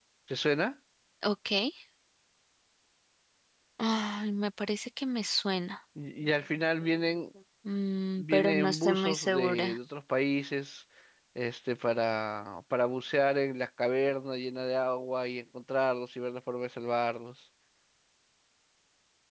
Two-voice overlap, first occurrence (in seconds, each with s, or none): 8.2 s